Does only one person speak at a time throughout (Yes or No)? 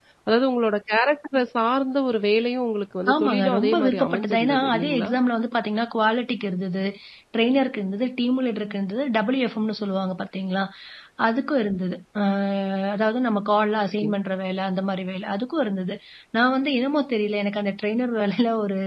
No